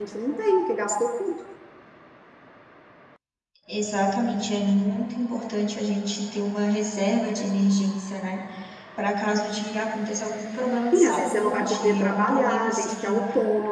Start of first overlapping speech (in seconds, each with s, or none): 10.9 s